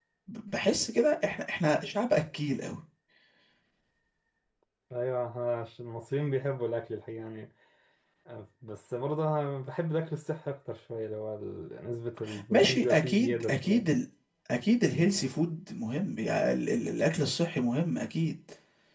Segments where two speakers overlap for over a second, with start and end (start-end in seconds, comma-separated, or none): 12.5-13.8